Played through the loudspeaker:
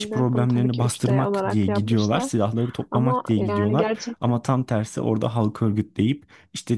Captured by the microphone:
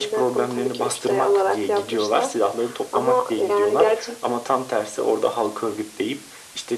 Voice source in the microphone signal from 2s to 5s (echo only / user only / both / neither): echo only